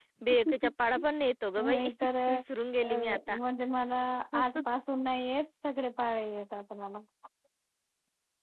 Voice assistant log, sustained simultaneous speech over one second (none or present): none